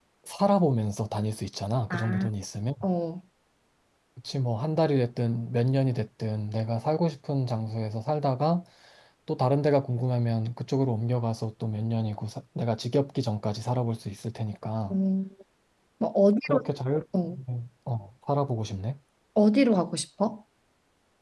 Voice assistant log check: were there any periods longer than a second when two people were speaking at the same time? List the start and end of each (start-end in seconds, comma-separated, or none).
none